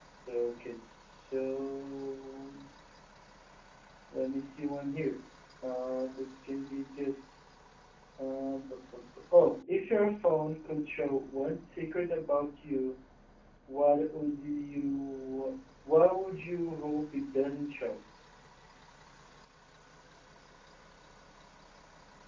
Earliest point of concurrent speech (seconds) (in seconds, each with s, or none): none